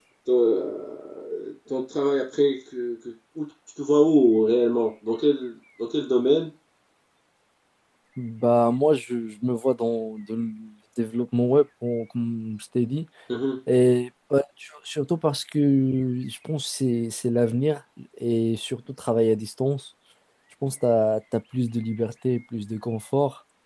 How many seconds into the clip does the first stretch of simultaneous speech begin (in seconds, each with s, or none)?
none